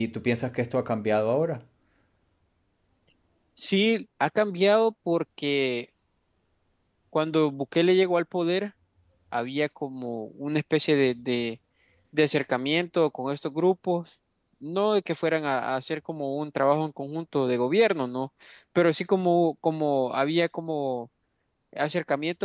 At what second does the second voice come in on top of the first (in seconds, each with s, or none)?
none